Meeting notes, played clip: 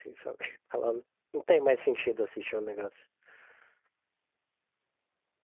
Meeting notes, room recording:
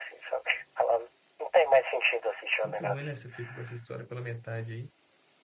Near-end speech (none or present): present